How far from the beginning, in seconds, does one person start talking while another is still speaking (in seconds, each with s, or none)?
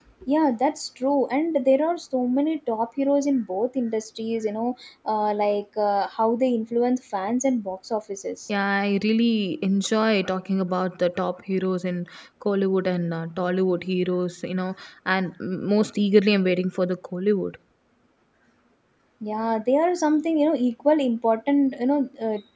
none